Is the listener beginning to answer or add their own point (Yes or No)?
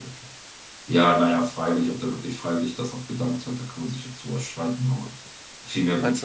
No